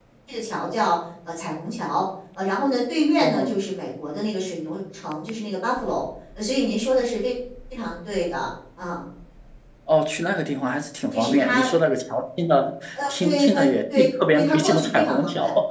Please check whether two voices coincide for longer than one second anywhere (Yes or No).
Yes